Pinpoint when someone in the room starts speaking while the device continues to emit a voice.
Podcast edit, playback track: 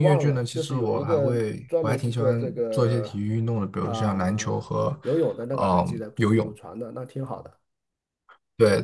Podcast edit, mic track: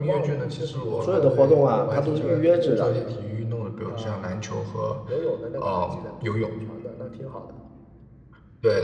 1 s

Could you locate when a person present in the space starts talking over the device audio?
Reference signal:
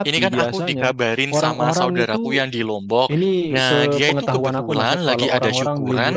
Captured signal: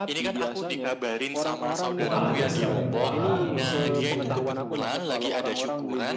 2 s

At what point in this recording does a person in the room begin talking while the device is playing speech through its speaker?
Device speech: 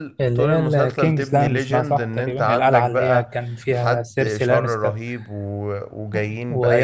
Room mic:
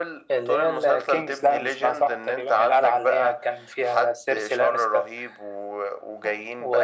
none

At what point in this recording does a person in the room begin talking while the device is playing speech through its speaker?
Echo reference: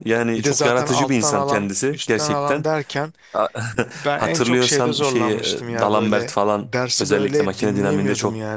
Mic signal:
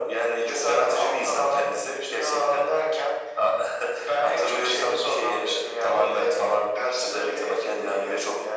none

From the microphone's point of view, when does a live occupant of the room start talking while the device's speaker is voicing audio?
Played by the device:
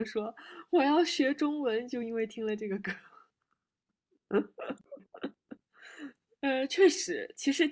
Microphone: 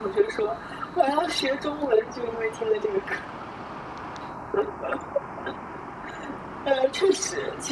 none

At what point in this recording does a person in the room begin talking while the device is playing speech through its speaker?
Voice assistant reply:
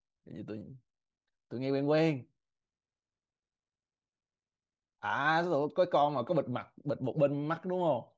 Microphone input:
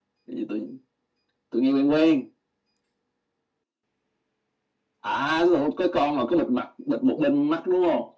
none

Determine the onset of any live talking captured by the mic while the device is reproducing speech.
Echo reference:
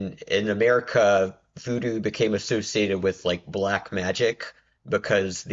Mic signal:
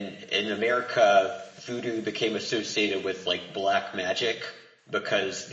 none

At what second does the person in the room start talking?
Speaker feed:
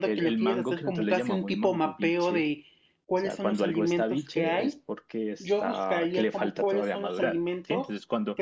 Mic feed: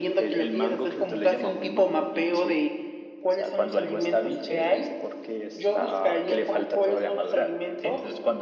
none

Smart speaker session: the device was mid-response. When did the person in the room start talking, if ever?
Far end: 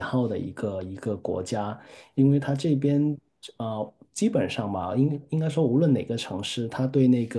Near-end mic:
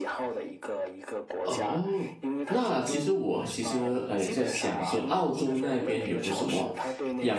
1 s

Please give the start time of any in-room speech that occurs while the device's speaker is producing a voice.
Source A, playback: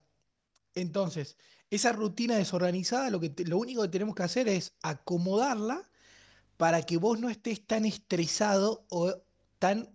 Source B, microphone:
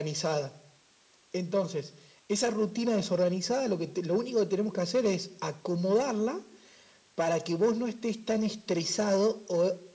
none

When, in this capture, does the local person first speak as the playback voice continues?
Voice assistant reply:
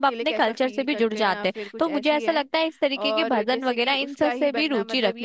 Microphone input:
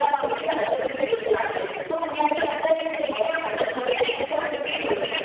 none

